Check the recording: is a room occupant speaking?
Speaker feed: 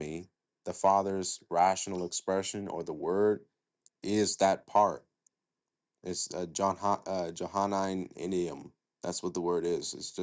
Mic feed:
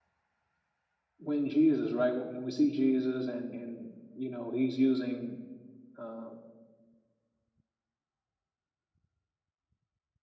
Yes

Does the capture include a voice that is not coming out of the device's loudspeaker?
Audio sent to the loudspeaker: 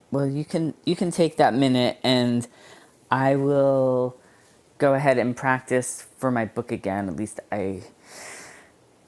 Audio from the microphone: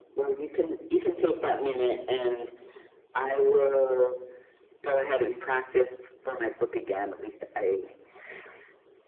No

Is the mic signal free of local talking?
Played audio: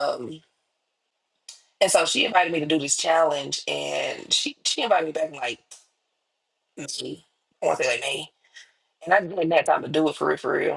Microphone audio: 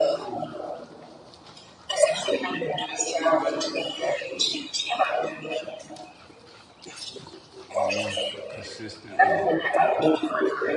No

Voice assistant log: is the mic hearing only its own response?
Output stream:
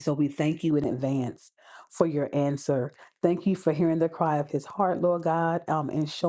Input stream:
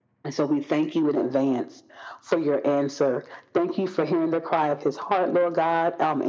Yes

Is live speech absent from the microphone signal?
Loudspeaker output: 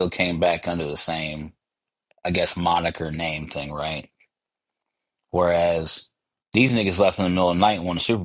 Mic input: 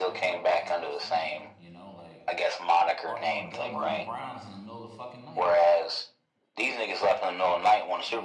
No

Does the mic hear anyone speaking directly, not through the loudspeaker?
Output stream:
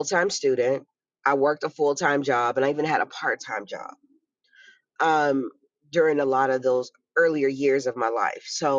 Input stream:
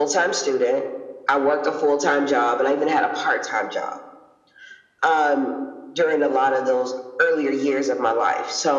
No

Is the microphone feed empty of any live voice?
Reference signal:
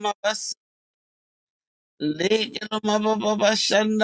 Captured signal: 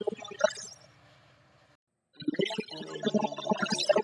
No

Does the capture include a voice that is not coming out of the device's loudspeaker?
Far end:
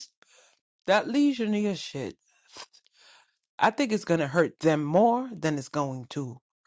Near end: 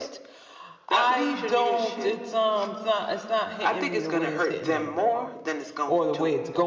Yes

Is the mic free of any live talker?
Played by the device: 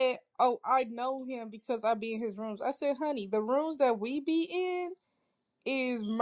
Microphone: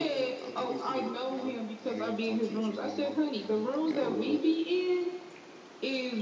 No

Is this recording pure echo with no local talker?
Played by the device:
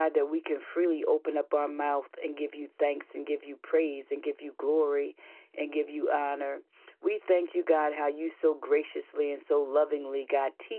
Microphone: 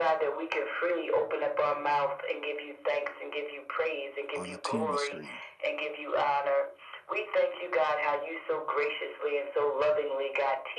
No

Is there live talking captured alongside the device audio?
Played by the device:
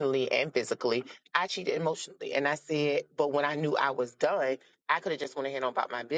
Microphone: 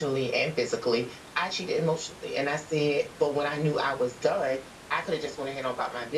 No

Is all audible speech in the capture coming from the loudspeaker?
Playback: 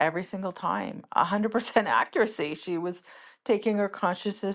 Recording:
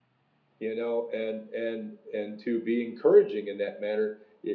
No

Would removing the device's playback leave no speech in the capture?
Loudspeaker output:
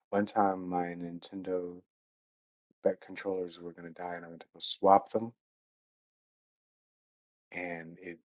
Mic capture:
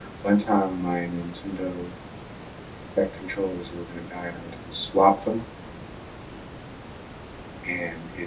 Yes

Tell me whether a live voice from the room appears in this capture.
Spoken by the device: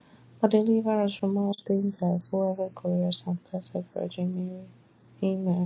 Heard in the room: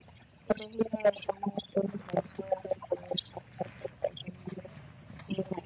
No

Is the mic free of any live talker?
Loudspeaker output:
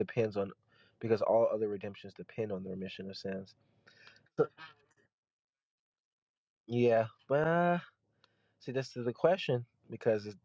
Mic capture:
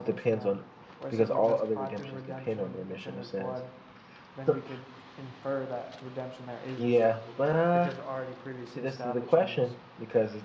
No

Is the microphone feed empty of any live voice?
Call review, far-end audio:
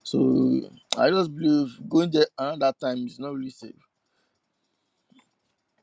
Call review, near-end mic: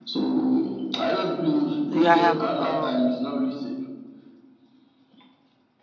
No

